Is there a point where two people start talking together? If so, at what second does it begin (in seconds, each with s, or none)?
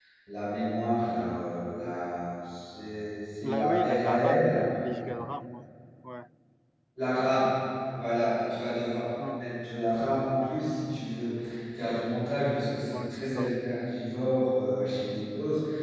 3.4 s